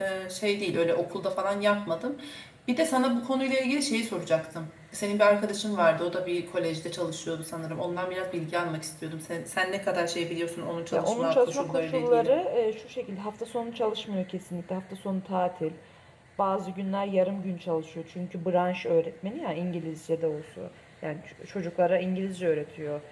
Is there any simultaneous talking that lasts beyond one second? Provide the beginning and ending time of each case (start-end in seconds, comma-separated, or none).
10.9-12.3